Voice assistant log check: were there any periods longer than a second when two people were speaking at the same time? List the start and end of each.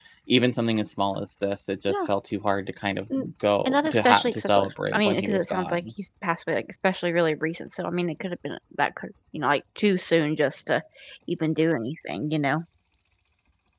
3.6-5.8

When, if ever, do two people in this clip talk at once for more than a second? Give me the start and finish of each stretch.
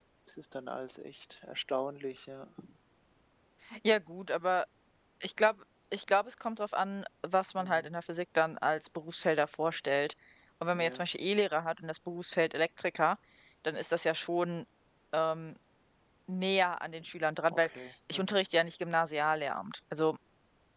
none

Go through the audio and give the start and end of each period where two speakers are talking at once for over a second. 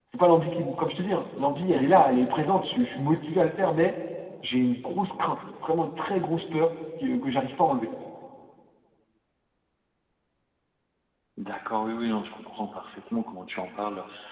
none

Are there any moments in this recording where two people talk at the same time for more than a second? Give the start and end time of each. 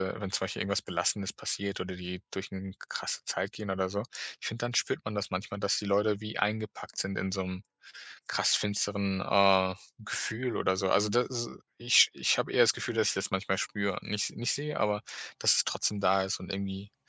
none

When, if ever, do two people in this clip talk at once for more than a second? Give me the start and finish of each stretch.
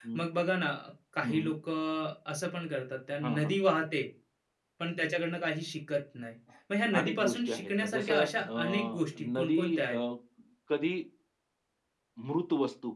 7.0-10.0

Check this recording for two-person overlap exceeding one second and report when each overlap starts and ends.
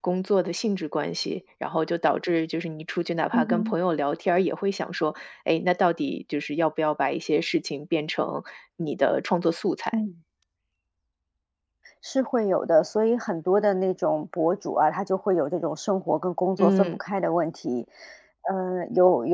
none

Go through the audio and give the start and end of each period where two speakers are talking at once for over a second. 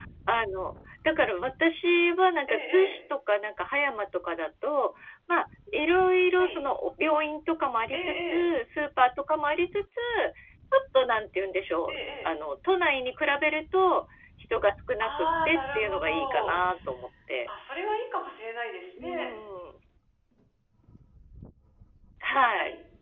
15.0-16.6

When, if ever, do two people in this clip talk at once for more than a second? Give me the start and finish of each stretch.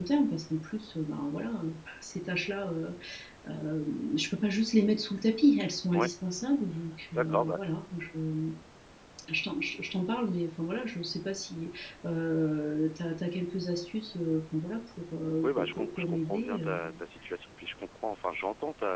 15.4-17.0

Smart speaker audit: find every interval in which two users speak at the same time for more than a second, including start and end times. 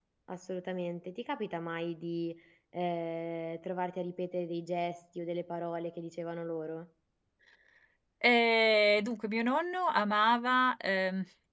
none

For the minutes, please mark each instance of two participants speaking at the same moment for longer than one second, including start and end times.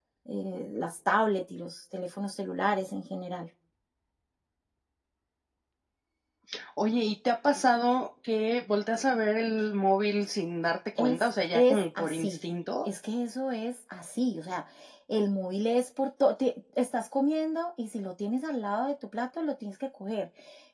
11.0-12.4

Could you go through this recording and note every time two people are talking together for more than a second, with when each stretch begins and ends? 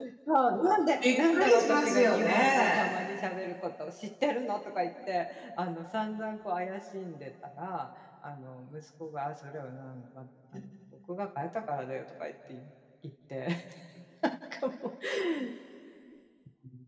1.0-3.0

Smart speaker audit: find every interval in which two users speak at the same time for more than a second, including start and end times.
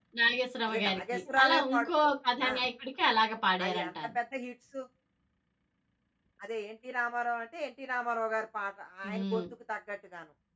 0.7-1.9

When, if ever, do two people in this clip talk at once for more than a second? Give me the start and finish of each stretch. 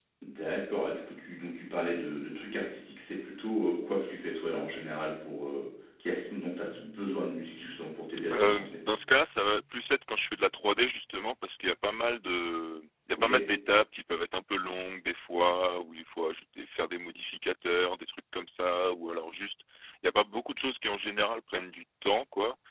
none

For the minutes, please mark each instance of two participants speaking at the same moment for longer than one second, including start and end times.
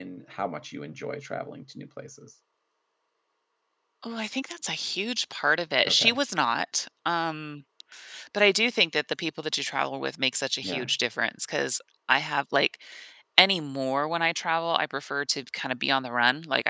none

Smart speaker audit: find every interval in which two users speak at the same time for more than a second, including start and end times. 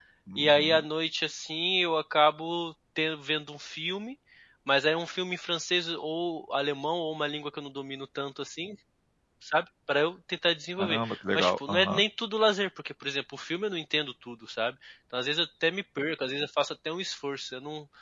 10.8-12.0

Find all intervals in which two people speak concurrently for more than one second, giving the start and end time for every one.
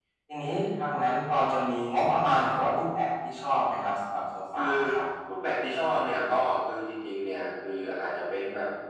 none

